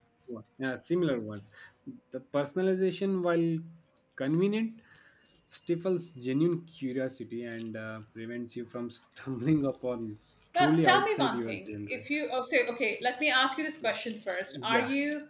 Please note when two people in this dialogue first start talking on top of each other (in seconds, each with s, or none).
10.6 s